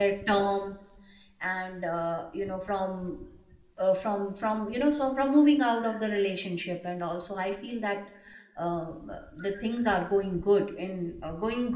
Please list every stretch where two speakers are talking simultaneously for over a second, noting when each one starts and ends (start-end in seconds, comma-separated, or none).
none